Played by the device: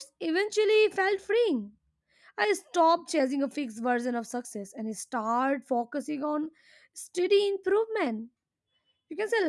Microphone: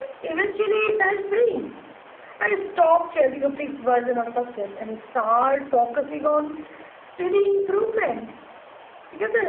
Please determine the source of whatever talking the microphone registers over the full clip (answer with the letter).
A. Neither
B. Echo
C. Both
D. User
B